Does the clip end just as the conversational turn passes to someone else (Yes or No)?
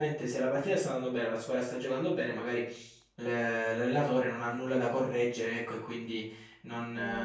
No